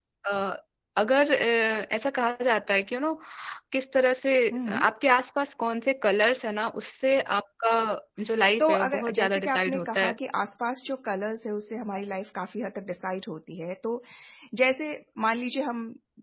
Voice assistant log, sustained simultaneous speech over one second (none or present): present